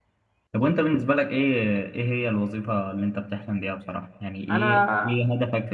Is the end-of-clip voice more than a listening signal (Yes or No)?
No